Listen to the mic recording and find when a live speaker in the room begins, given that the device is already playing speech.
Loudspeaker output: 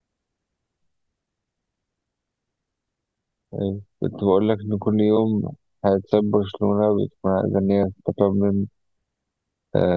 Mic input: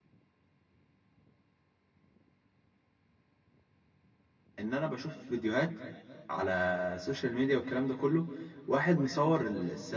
4.6 s

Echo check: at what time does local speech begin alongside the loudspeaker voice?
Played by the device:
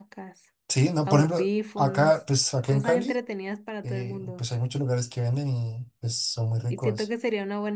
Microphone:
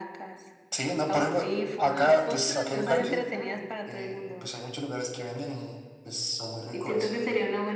1.9 s

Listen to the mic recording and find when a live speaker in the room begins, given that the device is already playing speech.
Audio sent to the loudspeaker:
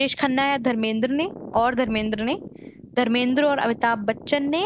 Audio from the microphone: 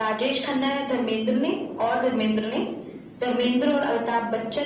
none

